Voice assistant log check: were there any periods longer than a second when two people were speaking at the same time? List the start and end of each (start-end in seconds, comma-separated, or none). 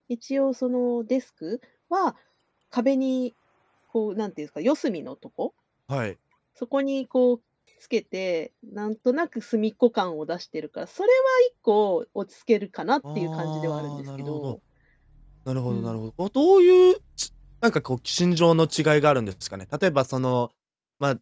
13.2-14.5